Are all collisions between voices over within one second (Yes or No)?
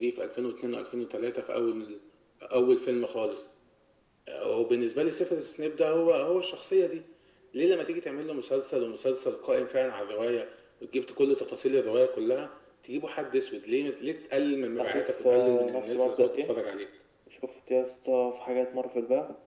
No